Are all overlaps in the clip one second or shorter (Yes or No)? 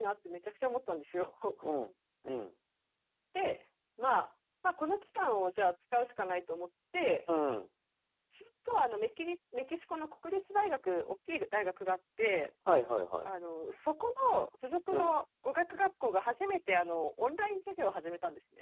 Yes